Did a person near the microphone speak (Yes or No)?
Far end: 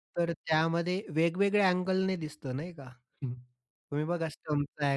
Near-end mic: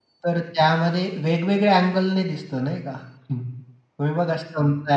No